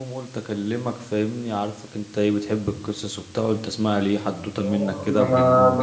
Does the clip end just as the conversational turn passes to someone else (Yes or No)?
Yes